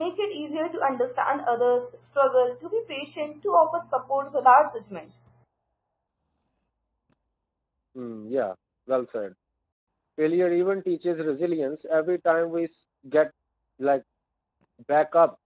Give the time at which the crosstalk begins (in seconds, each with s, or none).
none